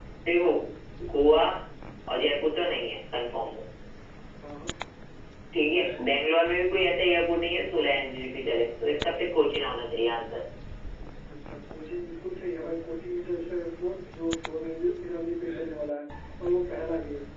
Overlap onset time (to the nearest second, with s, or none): none